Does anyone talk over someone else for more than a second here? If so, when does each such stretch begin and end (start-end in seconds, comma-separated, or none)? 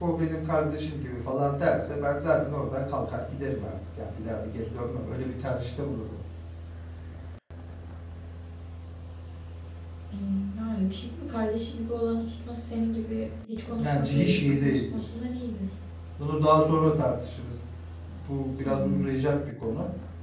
13.8-15.0